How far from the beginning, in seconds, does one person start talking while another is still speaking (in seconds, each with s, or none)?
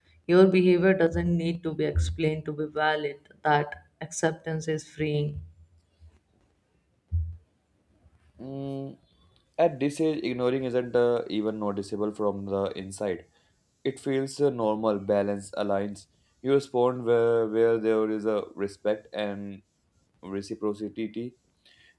none